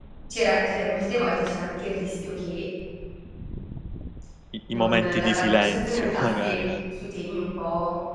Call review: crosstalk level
present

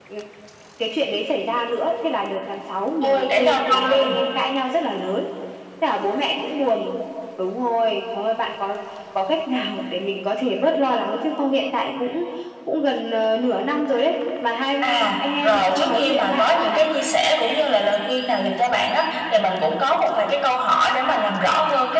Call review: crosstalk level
present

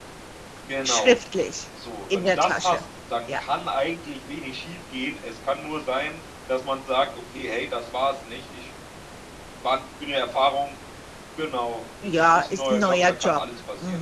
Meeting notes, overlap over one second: present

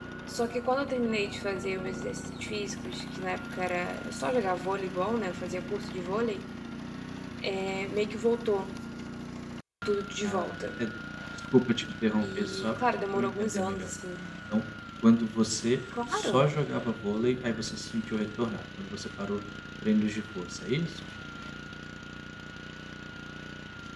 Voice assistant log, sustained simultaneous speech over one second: present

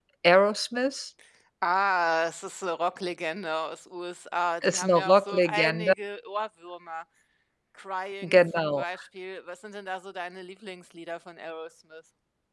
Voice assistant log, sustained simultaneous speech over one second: present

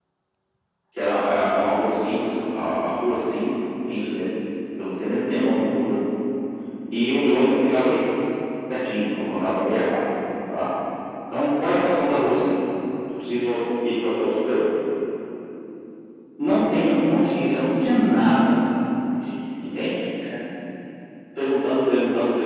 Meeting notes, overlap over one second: none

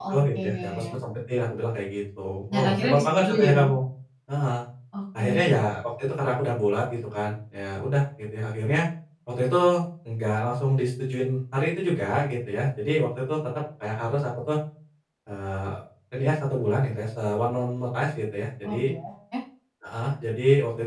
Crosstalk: present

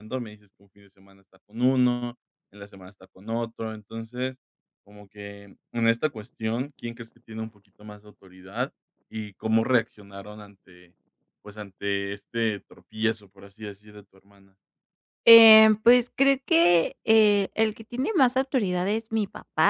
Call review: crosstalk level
none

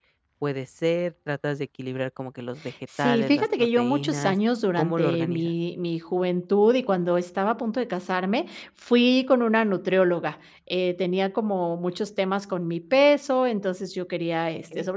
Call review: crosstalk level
present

